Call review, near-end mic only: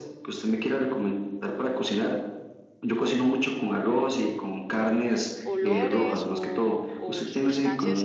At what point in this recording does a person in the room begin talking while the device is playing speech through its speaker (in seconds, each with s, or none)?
5.5 s